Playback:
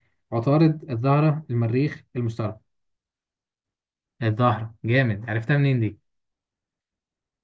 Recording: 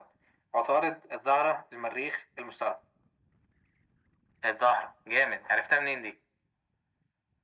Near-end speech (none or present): none